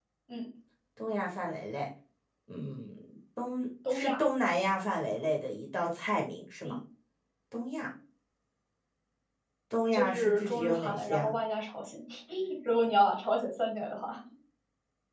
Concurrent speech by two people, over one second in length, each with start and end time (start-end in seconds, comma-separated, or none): 9.9-11.3